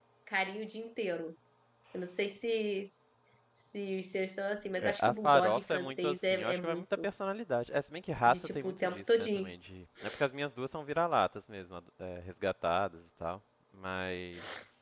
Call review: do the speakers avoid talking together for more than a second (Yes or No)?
No